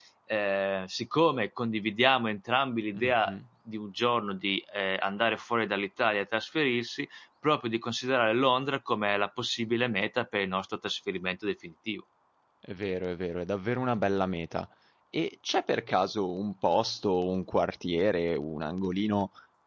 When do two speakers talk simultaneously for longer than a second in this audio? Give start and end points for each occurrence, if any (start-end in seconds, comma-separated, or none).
none